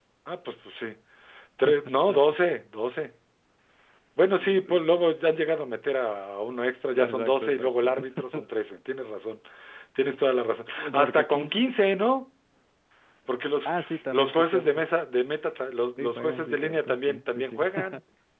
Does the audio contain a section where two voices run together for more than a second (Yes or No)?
Yes